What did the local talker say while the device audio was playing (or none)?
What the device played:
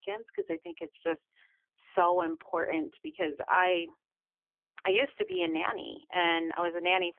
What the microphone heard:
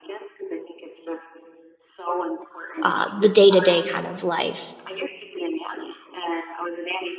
uh, the day to day kind of life.